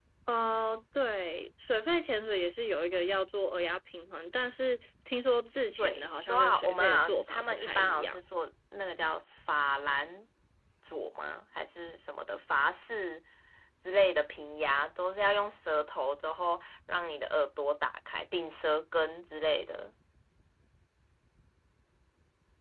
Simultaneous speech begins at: 6 s

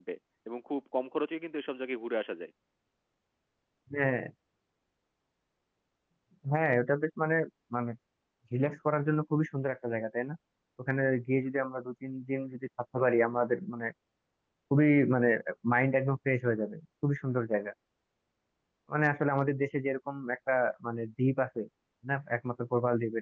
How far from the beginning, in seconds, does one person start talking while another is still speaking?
none

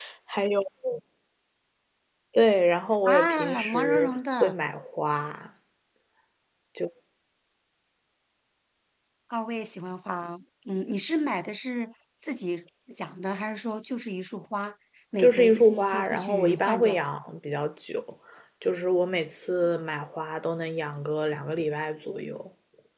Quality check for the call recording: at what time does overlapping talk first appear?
3 s

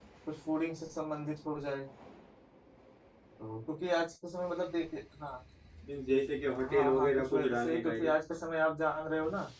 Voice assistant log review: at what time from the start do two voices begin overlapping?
7 s

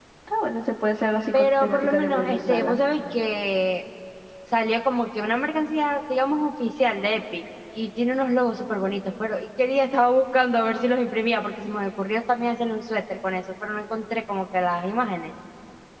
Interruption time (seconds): 1 s

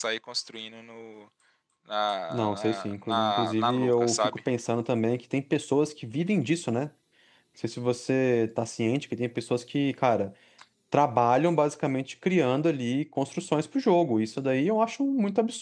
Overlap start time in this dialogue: 2 s

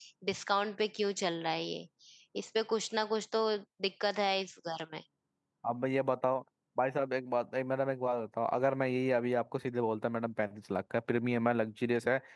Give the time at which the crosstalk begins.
none

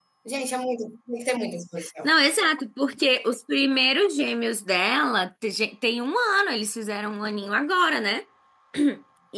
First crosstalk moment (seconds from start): none

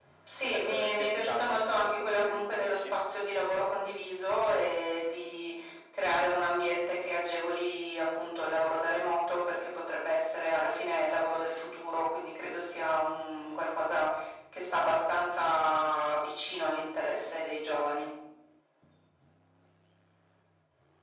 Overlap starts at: 1 s

